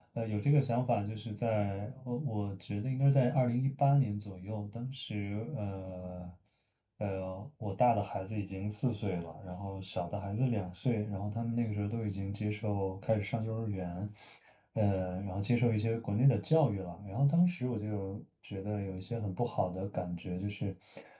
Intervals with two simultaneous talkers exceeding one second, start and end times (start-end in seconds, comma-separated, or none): none